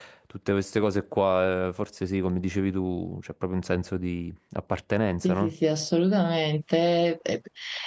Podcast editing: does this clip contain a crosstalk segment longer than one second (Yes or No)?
No